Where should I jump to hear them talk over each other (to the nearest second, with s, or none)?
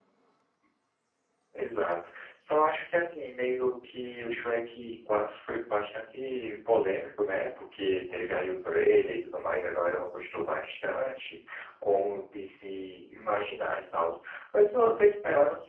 none